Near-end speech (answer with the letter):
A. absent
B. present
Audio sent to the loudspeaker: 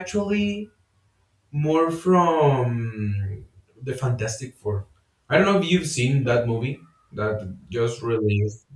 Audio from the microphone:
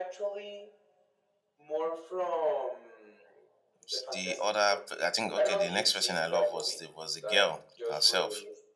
B